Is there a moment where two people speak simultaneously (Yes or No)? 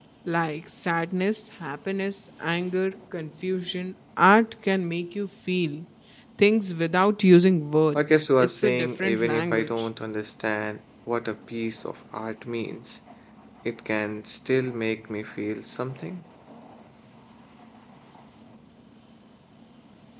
Yes